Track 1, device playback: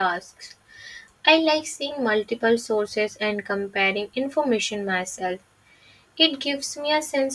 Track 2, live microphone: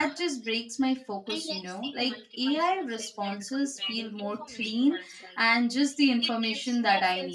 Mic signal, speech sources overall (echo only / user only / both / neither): both